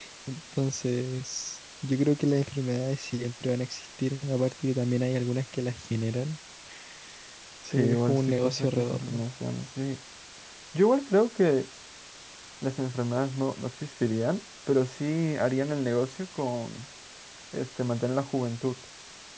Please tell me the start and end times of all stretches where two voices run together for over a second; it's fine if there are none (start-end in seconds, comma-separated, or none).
7.7-9.2